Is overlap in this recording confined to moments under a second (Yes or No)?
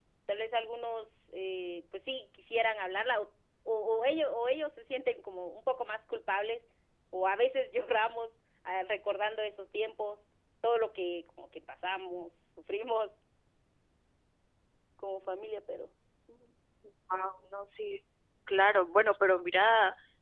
Yes